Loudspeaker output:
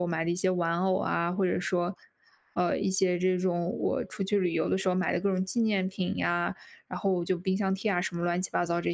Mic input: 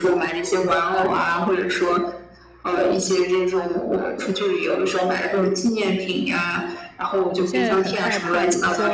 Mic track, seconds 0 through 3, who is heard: echo only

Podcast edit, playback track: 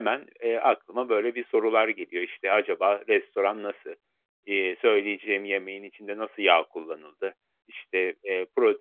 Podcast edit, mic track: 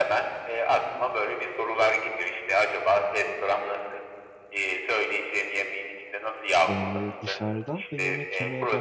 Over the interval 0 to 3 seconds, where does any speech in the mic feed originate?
echo only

